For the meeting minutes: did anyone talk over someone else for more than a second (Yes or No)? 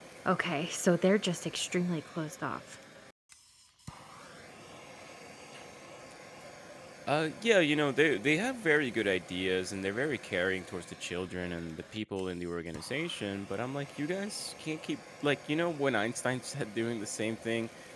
No